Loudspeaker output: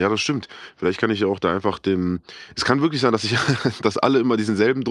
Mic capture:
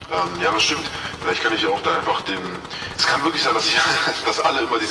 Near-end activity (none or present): none